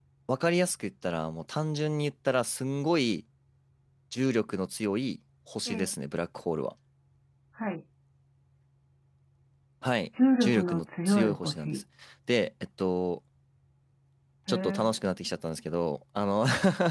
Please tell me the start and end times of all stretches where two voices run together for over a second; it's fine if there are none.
10.4-11.8

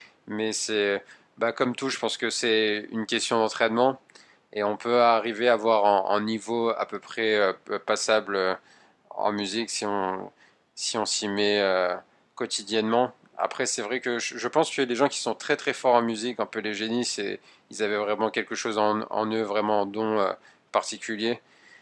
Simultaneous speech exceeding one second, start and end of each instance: none

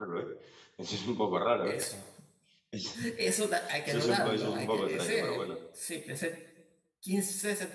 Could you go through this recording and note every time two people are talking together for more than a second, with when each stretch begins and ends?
3.8-5.4

